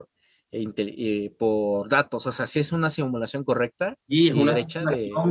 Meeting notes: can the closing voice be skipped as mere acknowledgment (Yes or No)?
No